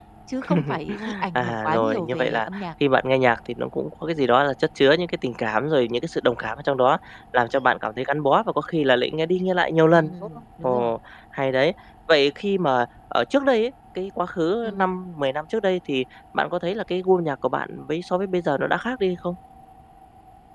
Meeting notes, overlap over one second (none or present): present